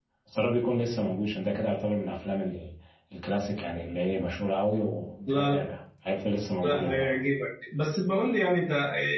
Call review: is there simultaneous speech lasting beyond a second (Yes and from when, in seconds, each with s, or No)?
No